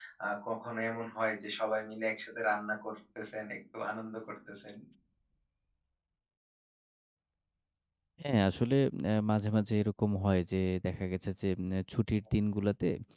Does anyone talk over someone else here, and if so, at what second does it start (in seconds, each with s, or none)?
none